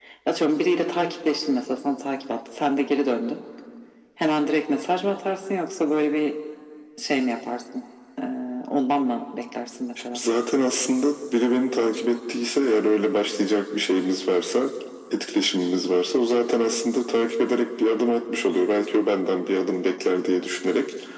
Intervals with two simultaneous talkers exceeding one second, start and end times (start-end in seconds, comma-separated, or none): none